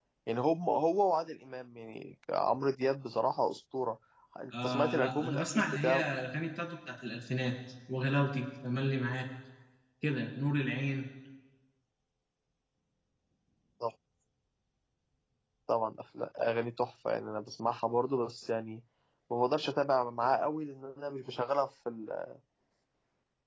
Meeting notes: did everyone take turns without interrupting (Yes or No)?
No